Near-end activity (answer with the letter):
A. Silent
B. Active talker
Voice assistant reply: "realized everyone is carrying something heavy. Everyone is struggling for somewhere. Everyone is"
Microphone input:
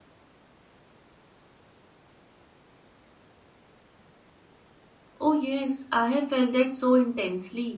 B